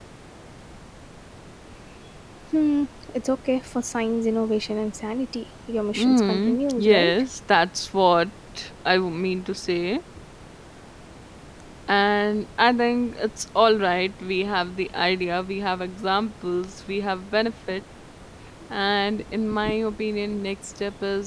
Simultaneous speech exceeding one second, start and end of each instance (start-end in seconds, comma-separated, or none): 6.0-7.2